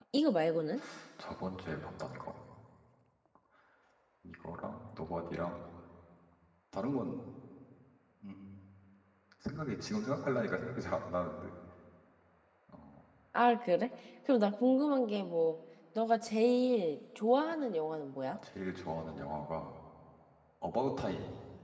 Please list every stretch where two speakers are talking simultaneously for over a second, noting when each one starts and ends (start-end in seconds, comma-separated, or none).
none